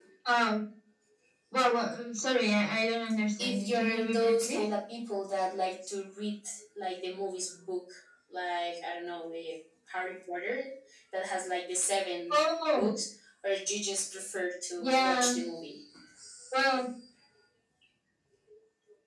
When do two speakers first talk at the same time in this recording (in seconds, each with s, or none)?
3.4 s